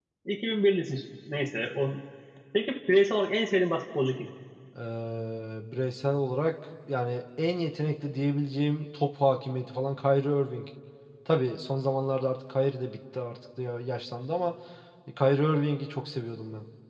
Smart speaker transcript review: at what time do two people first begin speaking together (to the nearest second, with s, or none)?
none